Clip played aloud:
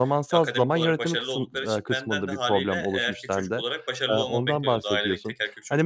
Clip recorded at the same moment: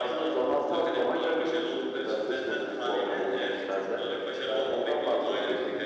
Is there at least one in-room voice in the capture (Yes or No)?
No